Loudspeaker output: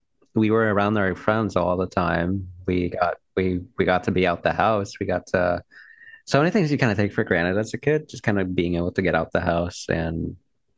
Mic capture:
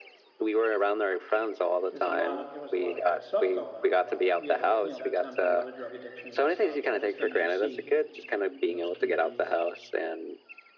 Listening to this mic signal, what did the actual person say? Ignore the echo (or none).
there's a lot of there was a lot of bad stuff going on. A lot of we had a you know, that town had a lot of drug addiction and stuff, all those things you see in those communities.